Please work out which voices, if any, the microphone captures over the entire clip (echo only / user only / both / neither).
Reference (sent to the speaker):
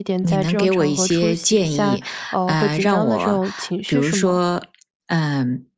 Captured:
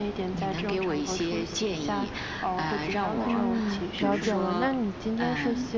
both